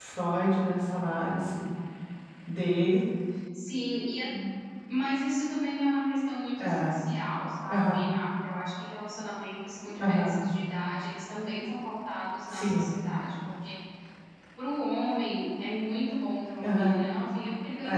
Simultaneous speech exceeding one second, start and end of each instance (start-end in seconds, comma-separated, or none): none